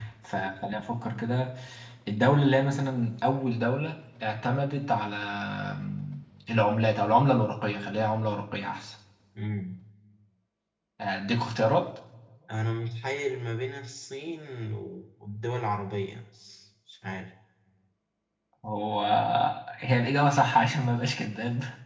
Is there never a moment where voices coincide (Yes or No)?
Yes